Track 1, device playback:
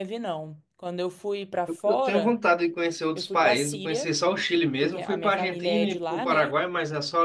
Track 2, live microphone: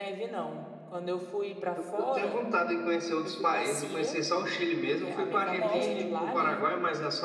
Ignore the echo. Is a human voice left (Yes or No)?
Yes